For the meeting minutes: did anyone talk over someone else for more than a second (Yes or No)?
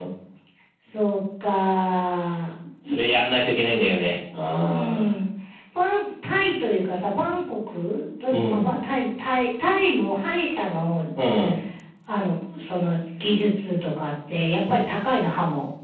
No